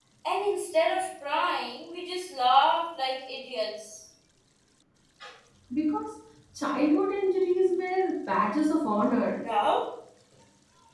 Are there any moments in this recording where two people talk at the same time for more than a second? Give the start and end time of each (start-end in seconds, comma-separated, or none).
none